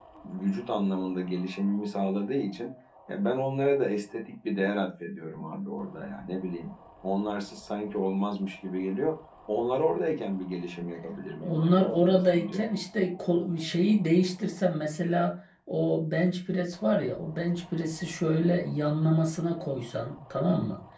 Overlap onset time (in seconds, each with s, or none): 11.4 s